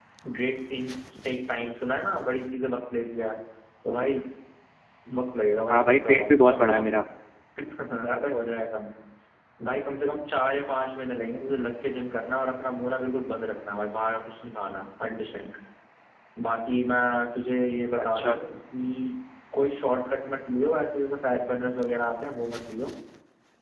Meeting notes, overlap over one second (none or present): present